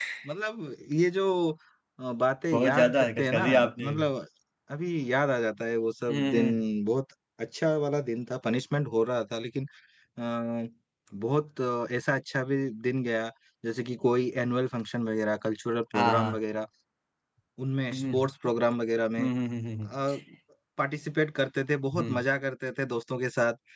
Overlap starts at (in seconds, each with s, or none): 2.5 s